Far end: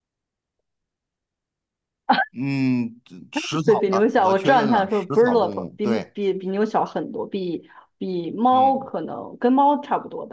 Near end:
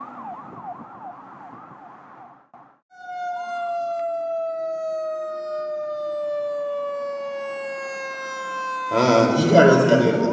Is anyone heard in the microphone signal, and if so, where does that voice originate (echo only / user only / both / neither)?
user only